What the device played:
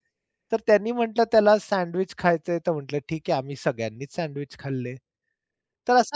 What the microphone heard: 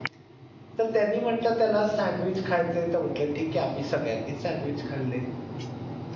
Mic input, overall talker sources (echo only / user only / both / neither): echo only